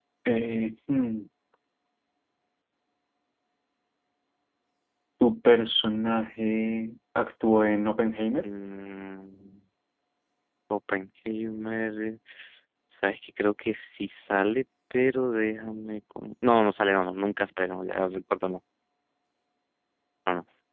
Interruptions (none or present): none